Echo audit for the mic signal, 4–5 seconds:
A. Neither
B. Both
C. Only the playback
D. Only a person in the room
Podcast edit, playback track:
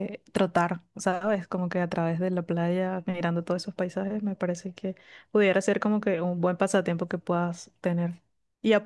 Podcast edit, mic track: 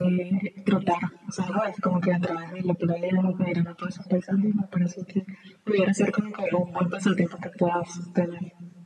C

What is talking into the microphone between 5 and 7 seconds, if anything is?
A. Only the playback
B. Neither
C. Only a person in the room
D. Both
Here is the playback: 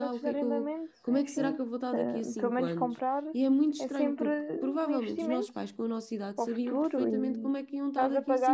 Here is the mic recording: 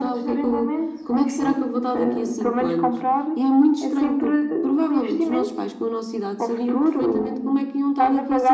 A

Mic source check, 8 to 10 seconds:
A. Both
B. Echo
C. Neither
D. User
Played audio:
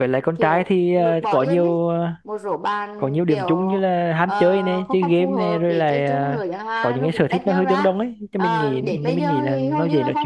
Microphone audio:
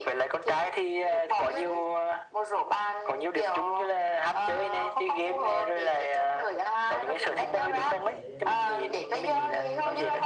A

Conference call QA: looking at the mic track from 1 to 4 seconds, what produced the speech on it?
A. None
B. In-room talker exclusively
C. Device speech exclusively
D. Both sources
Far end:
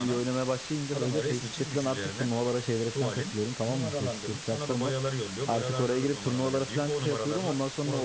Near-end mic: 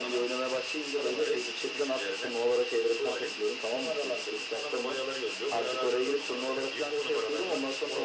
C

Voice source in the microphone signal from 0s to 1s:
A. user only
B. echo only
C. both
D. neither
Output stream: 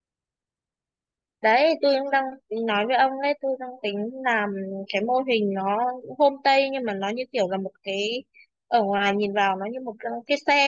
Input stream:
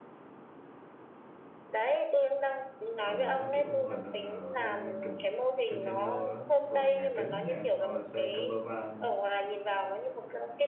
D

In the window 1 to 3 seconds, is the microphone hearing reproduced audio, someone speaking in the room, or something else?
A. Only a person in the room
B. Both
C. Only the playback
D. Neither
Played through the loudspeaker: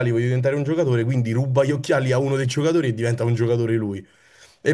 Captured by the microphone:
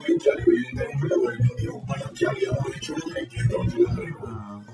C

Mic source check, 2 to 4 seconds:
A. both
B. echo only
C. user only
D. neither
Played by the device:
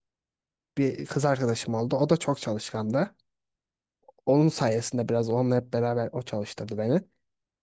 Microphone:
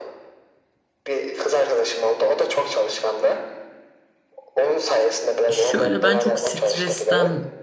B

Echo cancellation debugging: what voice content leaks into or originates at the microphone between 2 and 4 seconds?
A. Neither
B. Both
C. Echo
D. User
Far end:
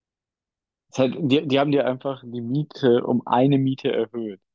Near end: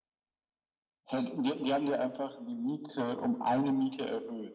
C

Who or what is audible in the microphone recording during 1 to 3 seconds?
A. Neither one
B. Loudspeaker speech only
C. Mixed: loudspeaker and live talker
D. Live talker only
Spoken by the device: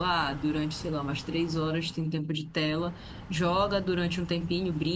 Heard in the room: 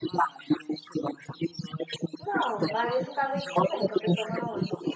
C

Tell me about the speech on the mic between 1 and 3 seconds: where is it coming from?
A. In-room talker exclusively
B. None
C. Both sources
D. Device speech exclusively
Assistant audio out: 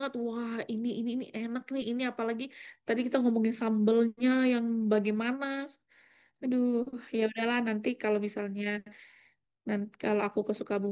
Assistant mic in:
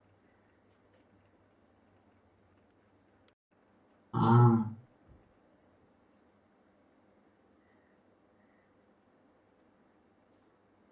B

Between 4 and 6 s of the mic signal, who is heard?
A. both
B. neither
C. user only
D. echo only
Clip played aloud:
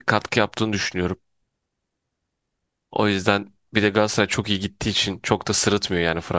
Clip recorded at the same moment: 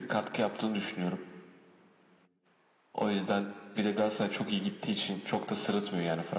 D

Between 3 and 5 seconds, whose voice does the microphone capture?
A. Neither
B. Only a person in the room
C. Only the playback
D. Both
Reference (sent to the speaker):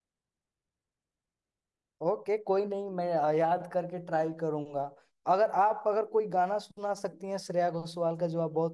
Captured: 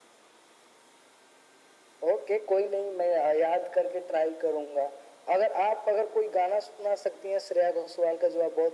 C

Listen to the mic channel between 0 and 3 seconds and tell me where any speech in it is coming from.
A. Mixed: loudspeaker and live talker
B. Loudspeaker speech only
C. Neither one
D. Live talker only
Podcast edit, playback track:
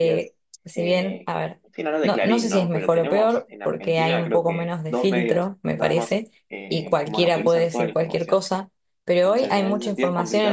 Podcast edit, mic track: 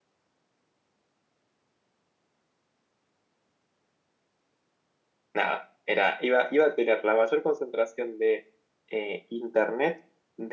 C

